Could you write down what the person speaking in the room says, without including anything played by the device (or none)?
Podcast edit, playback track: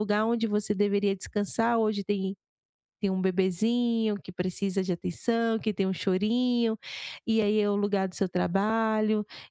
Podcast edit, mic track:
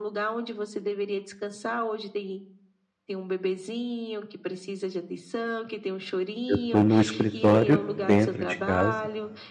eu estou no escritório dentro de casa,